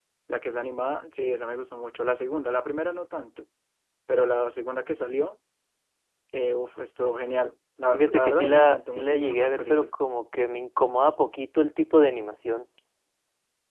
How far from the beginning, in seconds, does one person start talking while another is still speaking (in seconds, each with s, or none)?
7.9 s